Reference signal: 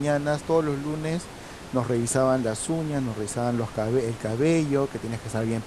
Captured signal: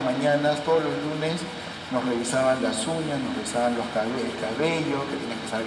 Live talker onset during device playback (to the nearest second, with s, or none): none